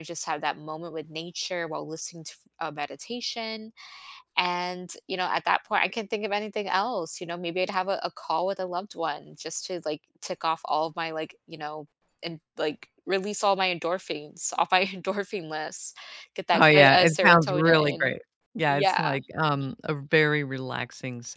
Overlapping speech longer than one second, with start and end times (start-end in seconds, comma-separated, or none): 16.5-18.1